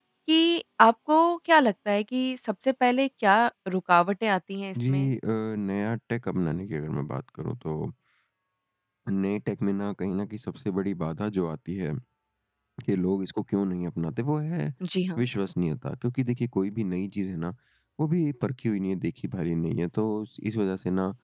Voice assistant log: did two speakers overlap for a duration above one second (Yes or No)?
No